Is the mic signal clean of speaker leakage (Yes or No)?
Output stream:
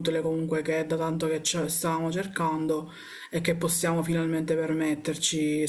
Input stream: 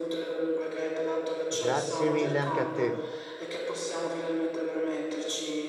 No